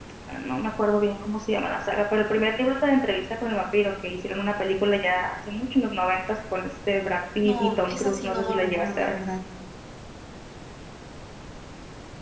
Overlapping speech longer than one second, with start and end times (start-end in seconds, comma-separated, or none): 7.4-9.1